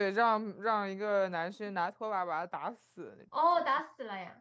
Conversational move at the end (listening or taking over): taking over